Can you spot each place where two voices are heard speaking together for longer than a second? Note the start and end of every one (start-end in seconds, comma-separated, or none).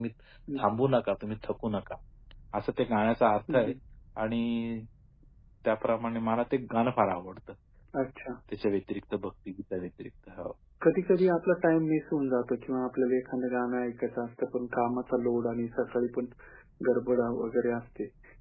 none